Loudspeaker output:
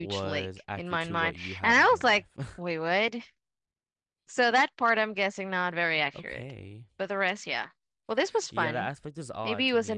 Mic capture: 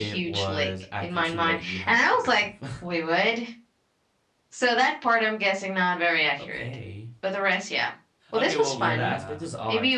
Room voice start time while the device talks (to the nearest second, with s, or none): 8 s